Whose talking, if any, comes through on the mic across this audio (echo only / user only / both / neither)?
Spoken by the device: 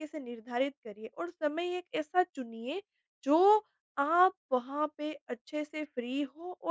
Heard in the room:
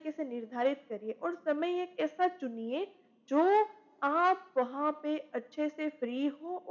echo only